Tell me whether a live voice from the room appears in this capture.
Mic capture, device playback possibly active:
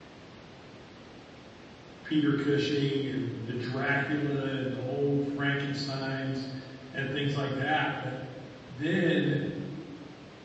Yes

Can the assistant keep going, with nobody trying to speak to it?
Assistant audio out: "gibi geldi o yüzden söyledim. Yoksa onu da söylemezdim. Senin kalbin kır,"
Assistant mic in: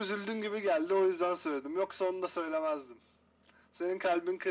Yes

